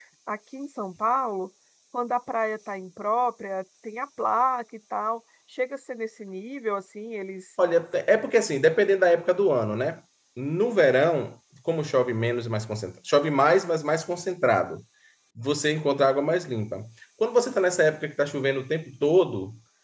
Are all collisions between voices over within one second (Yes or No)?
Yes